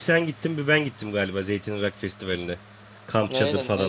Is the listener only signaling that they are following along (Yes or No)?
No